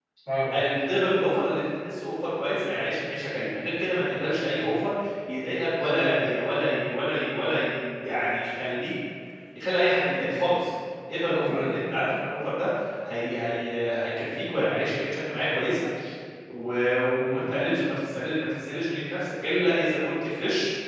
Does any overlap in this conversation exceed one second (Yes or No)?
No